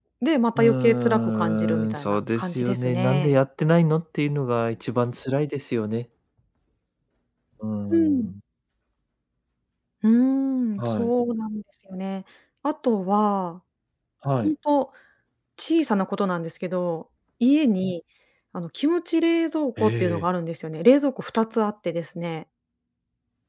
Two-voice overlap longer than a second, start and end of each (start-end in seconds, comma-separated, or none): 0.6-3.4